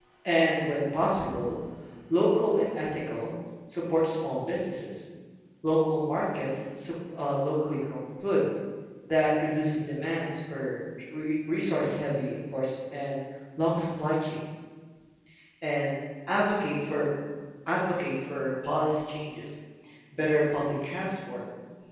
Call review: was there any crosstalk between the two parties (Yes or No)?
No